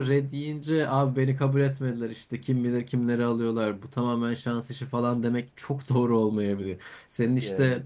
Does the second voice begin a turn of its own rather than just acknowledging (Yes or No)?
No